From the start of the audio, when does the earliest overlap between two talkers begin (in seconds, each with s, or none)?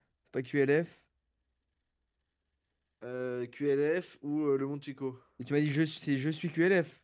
none